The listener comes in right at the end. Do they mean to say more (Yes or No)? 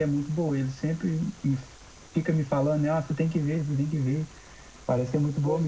Yes